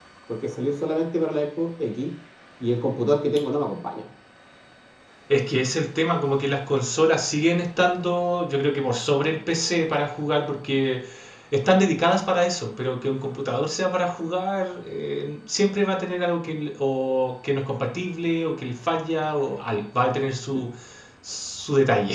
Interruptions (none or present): none